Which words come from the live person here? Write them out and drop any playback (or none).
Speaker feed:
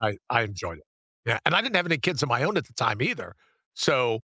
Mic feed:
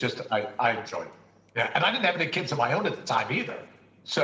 none